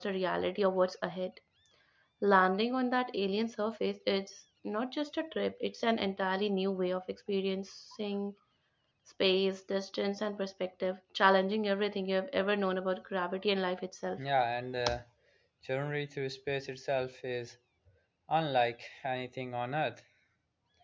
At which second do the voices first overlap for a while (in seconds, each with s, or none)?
none